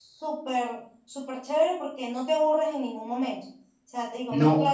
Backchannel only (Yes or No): Yes